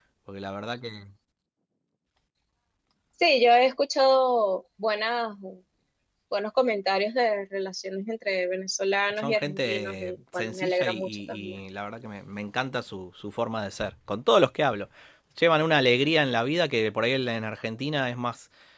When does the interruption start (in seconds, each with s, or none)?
9.1 s